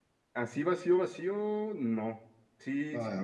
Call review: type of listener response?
listening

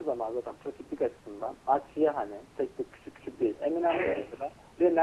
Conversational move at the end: listening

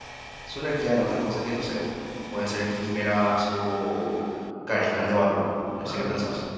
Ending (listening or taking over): taking over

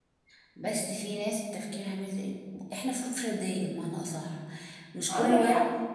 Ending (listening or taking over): listening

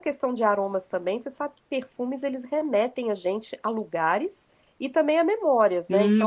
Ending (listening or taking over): taking over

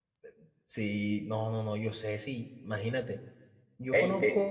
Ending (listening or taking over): listening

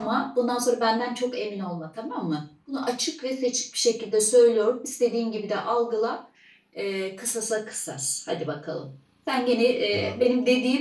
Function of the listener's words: listening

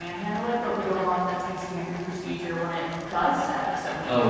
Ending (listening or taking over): taking over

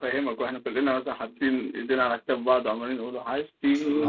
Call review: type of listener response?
taking over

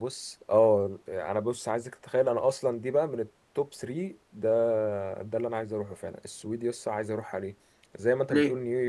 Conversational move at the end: listening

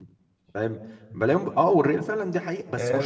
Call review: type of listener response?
taking over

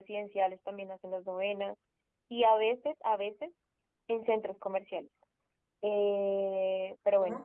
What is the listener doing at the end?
listening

